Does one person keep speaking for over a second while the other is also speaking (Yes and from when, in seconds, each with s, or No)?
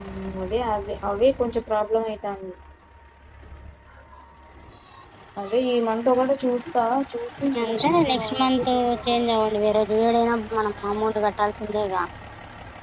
Yes, from 7.4 s